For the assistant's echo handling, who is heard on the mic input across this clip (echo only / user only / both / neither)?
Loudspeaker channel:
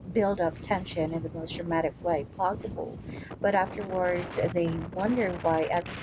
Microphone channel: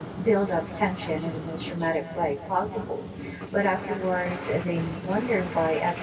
echo only